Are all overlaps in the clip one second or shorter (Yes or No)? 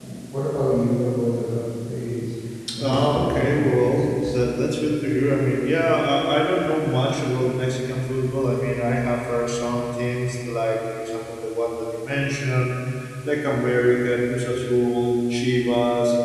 No